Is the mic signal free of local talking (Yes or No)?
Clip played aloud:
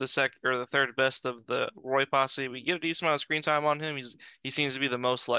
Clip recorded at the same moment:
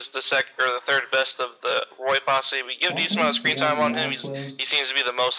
No